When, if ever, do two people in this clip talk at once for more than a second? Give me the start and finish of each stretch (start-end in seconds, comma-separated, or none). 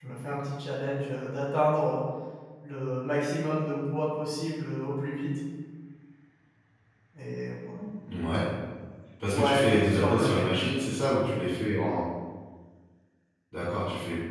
9.3-10.6